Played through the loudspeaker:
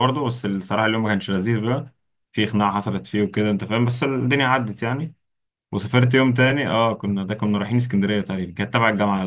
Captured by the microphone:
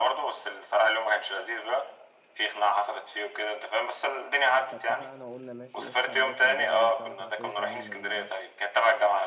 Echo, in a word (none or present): present